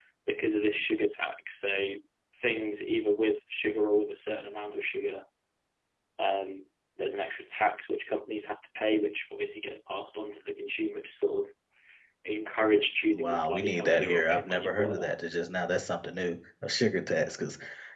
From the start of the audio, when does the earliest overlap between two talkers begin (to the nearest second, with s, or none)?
13 s